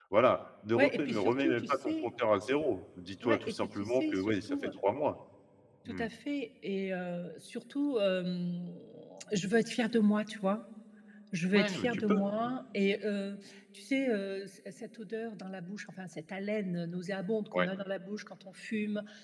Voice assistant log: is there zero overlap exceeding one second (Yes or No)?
No